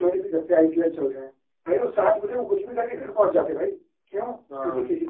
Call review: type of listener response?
listening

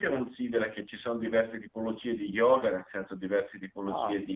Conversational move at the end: listening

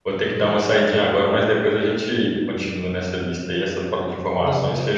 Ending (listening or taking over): taking over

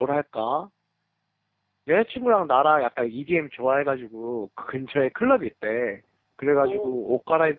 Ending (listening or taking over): listening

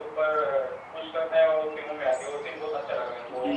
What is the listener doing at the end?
taking over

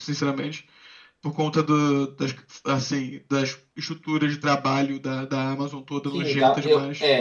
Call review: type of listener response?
taking over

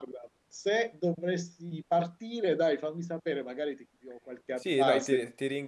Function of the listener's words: taking over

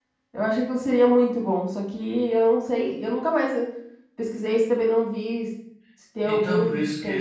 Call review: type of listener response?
taking over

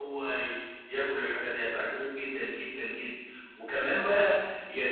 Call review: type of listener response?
listening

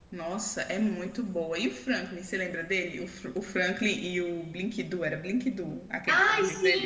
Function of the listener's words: taking over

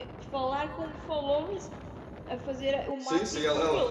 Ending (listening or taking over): taking over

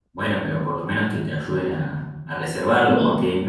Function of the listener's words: listening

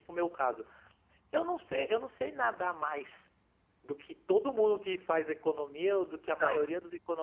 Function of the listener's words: listening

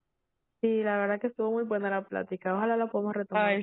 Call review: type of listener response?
taking over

